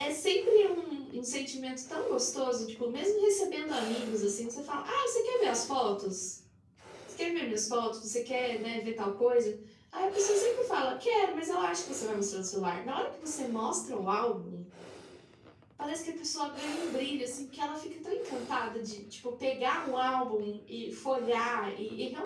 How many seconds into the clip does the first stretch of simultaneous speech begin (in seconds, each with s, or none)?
none